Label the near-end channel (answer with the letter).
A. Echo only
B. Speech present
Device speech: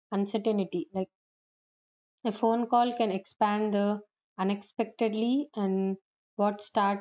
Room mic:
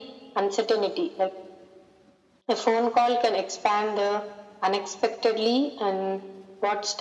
A